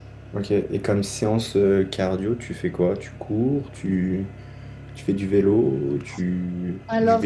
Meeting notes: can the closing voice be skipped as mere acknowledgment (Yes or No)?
No